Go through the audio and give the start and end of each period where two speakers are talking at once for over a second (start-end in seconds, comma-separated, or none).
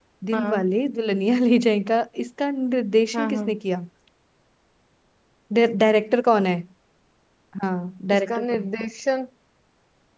none